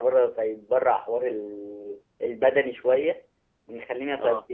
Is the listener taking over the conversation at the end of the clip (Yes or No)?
No